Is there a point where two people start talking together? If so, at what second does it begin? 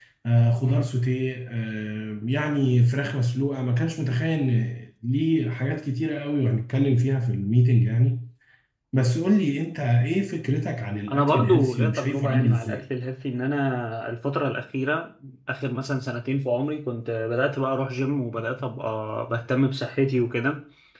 11.1 s

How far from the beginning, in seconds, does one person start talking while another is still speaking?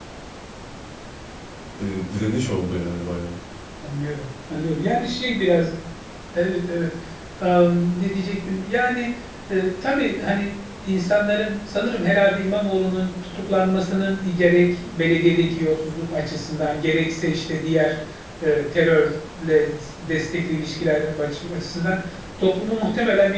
none

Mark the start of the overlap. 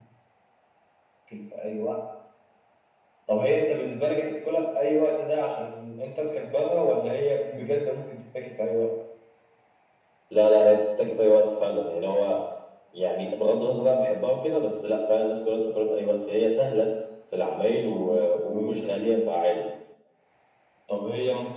17.9 s

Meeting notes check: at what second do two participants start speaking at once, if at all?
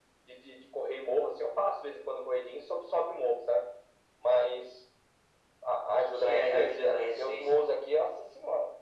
6.1 s

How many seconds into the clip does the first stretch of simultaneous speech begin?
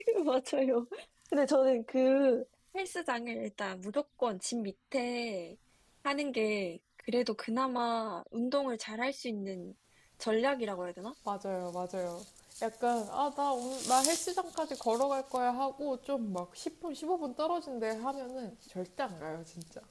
none

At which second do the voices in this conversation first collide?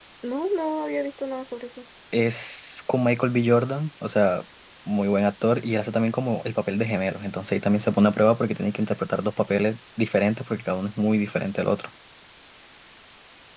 none

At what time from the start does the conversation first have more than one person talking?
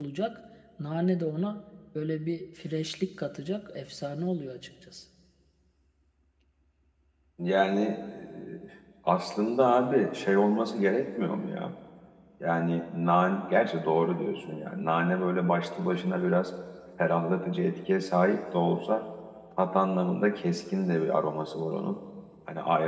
none

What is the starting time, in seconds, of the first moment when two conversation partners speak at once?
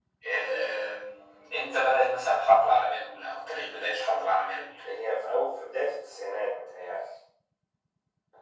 none

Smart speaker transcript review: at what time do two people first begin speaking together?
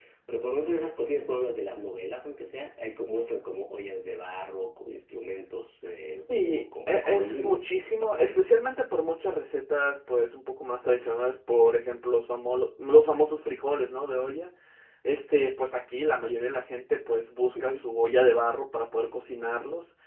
6.2 s

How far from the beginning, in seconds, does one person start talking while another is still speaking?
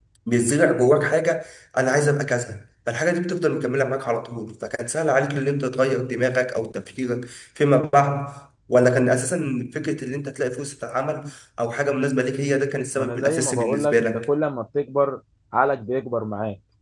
13.0 s

